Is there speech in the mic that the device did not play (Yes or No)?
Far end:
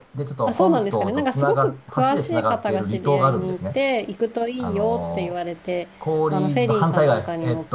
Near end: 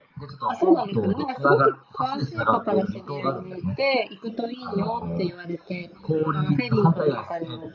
No